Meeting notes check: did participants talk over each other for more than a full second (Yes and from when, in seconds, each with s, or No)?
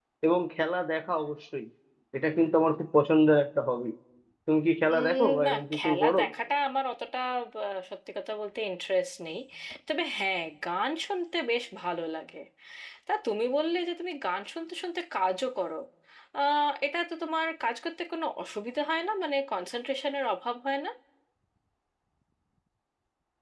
Yes, from 4.9 s